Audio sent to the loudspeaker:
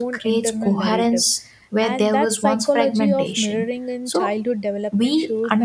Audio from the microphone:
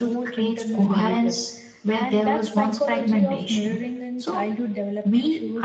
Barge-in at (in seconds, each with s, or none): none